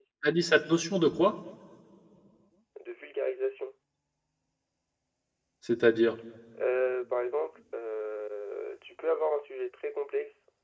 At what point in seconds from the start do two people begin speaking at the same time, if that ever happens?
none

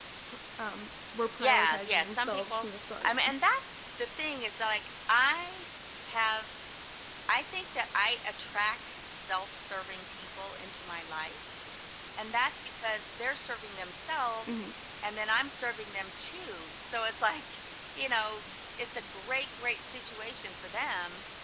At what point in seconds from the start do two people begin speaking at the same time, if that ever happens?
1.4 s

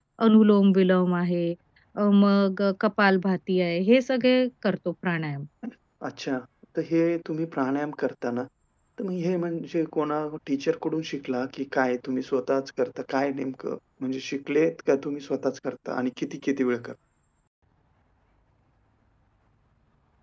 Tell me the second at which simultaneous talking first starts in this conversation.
none

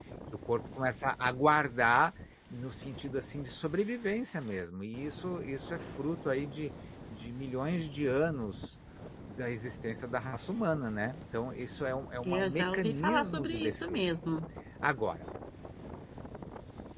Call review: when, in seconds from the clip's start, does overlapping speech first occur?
12.2 s

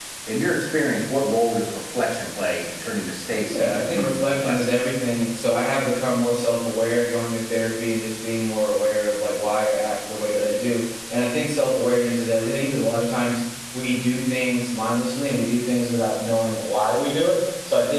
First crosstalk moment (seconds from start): 3.4 s

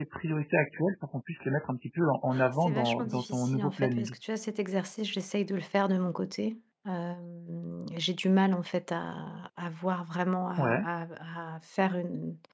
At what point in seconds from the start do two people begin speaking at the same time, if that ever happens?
2.6 s

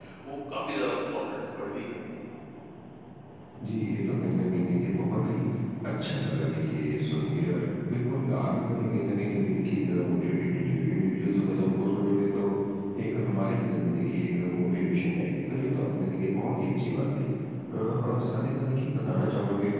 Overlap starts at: none

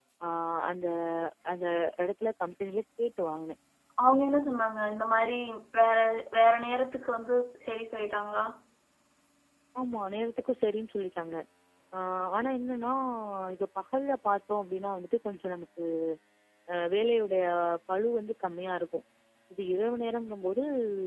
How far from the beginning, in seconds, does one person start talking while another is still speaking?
none

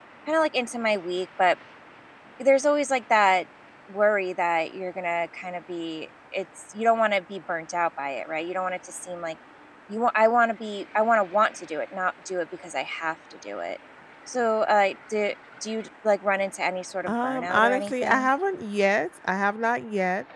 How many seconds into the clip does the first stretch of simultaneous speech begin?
17.0 s

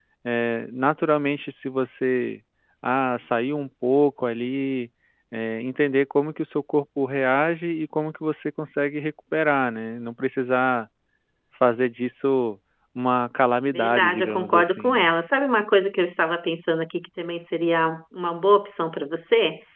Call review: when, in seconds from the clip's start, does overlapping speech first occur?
13.7 s

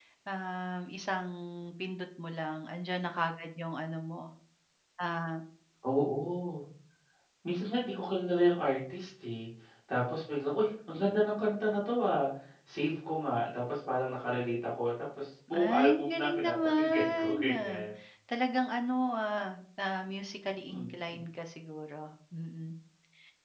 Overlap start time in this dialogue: 15.5 s

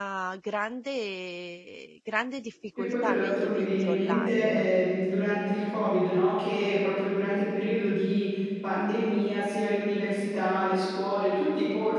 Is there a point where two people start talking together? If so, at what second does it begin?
2.8 s

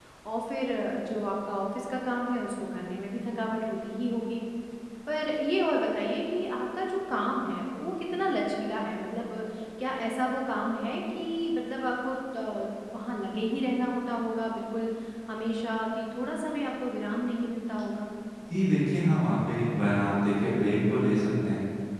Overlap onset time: none

